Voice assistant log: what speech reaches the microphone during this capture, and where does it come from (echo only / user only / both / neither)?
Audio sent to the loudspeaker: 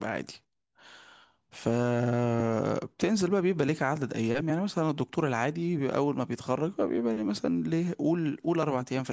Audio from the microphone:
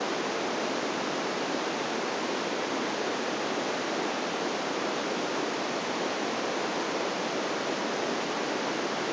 neither